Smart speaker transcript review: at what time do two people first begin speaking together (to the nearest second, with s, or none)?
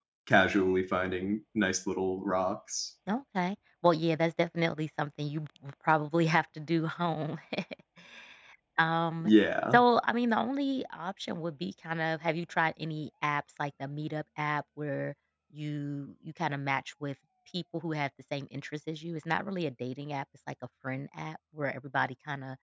none